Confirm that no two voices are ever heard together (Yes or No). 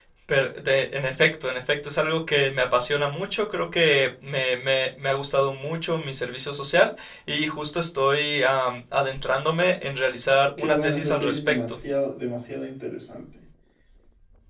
No